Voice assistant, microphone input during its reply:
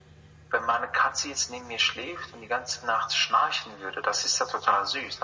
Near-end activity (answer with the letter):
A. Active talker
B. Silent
B